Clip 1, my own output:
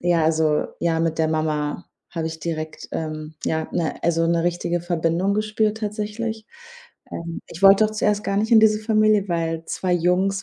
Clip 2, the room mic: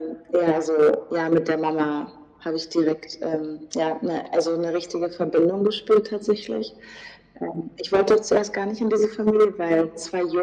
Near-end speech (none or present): none